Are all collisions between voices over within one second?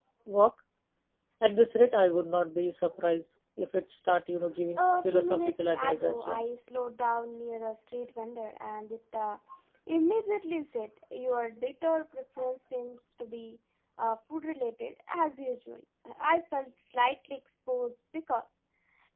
No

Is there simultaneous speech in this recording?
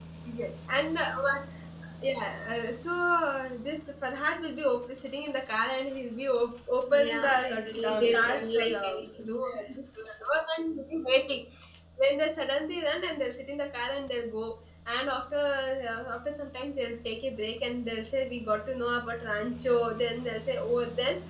Yes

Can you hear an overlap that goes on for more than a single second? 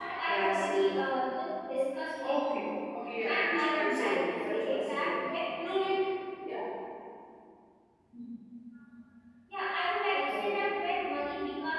Yes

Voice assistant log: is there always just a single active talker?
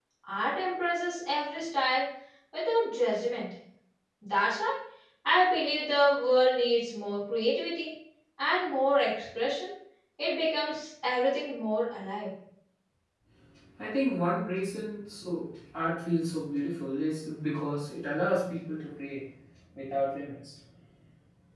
Yes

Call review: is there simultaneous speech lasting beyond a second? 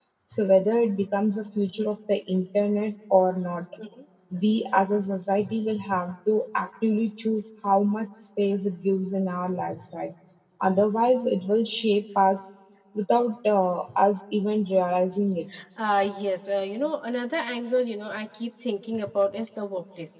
No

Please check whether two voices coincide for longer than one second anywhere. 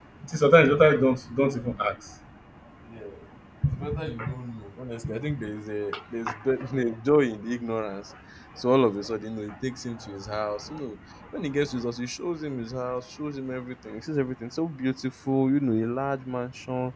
No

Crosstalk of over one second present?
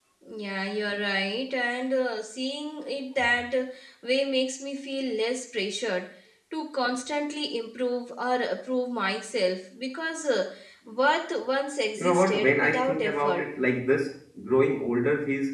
Yes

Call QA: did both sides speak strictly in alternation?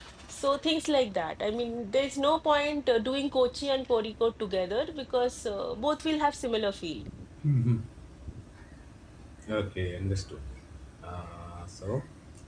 Yes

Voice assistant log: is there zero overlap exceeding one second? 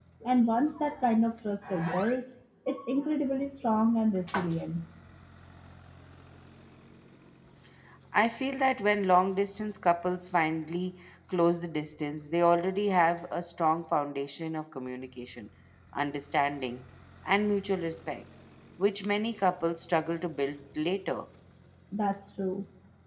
Yes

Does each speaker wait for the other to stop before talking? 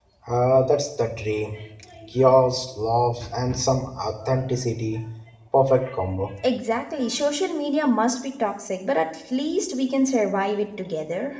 Yes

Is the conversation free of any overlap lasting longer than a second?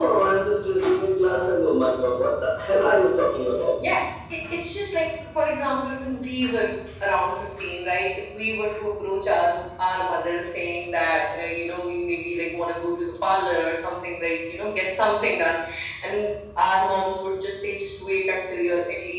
Yes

